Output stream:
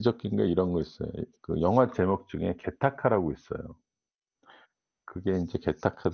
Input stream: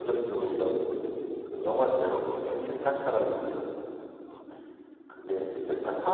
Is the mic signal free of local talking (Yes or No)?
No